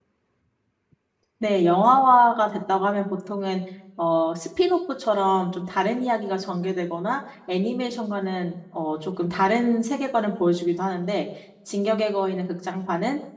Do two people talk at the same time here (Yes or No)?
No